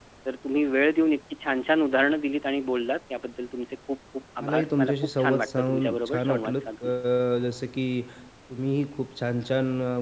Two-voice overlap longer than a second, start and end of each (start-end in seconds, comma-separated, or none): 4.4-6.9